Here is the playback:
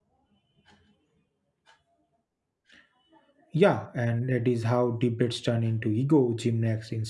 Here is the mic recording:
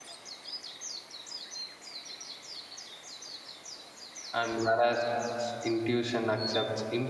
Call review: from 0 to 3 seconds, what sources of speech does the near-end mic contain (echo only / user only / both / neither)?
neither